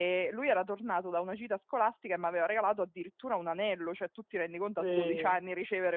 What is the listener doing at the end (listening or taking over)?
listening